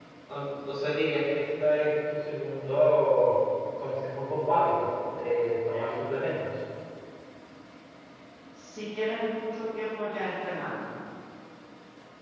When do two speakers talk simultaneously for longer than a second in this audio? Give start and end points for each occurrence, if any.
none

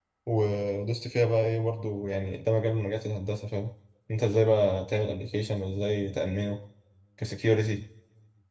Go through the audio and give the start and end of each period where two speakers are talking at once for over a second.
none

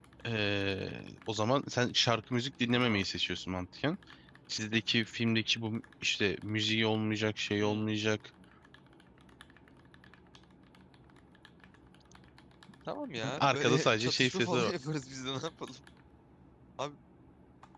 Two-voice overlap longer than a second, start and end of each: 13.4-14.7

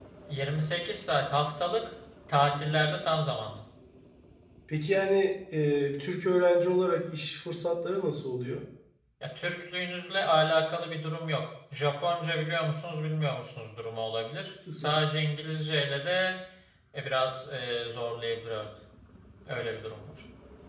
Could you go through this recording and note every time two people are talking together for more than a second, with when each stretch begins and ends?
none

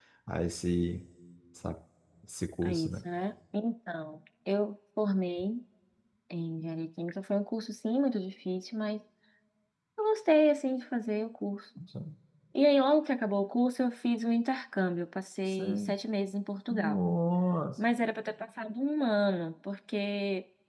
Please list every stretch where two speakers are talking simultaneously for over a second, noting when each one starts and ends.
none

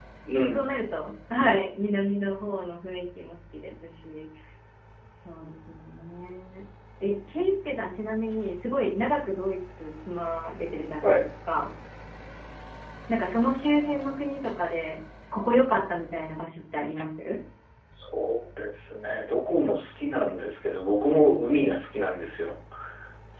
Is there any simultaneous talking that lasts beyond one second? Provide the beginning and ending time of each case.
none

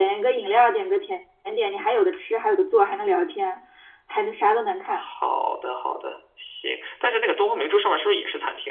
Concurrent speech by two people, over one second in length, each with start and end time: none

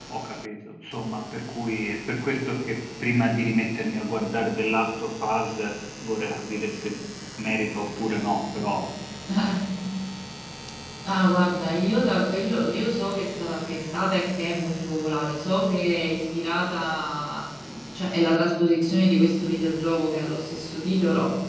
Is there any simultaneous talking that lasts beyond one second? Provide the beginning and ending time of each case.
none

